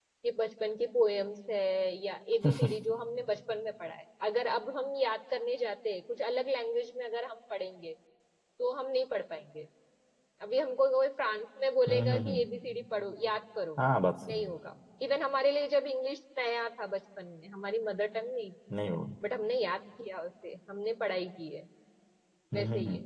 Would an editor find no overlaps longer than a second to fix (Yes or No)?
Yes